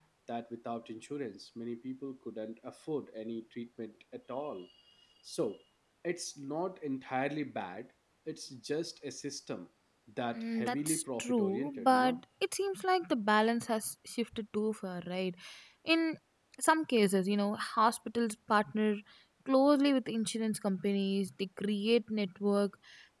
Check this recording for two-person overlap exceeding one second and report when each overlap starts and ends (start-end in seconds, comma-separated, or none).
10.3-12.2